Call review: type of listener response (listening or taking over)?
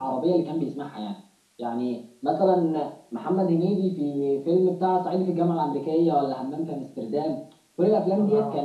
listening